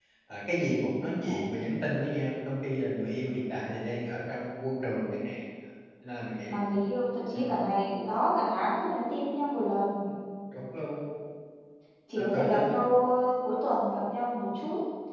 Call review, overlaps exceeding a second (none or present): none